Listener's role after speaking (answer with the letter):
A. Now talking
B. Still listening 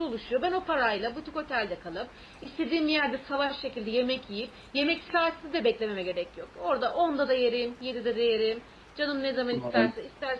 B